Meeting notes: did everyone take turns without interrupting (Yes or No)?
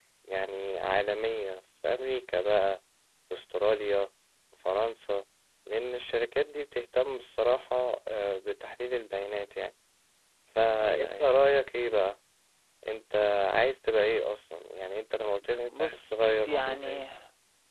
No